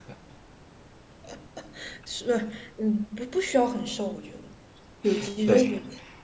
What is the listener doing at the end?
taking over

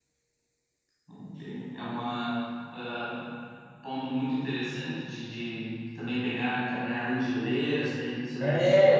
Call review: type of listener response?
taking over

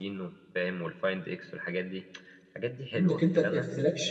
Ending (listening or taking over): taking over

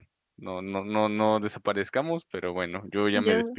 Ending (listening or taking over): listening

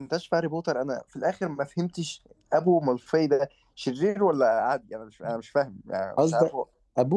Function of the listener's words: taking over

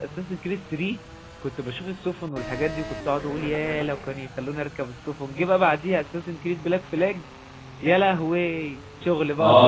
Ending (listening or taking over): taking over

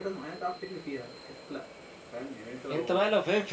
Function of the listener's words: taking over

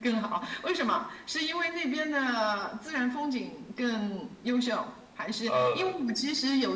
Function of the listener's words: listening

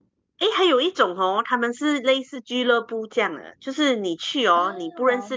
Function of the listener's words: listening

